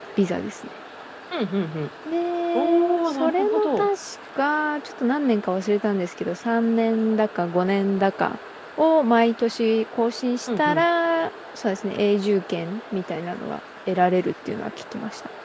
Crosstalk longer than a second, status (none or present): present